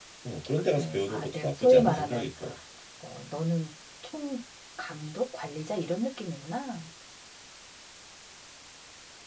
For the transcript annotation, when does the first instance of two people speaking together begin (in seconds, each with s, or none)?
0.7 s